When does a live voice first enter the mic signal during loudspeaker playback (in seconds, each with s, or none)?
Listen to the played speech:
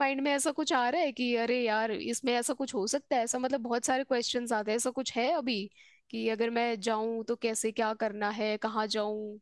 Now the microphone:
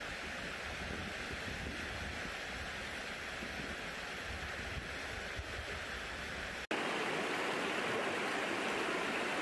none